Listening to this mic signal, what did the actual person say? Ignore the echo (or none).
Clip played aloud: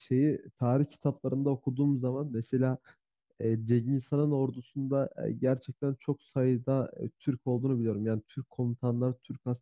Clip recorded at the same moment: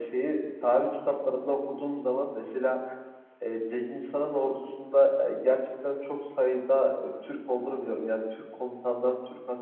none